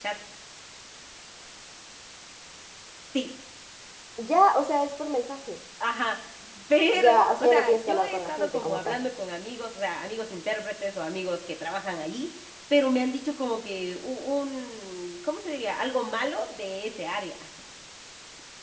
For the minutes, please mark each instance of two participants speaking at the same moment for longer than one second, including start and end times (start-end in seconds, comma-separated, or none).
6.9-9.0